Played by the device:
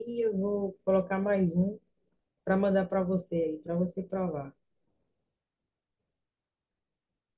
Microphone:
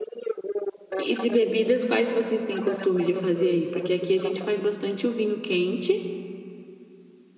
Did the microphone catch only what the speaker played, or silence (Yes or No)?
No